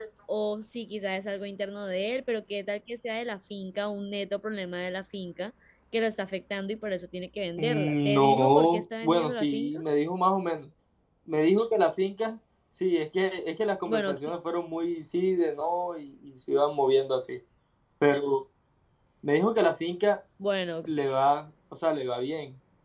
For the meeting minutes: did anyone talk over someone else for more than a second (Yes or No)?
Yes